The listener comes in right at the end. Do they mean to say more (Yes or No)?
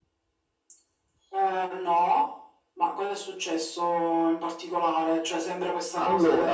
No